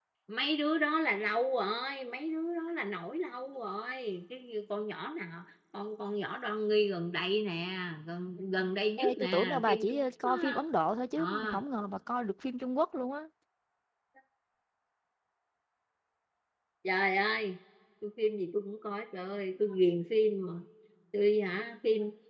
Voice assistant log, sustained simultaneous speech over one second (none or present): present